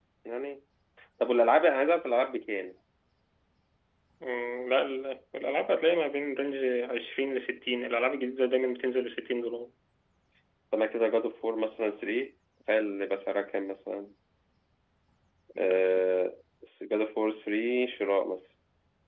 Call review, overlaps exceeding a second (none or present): none